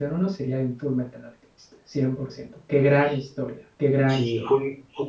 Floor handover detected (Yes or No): Yes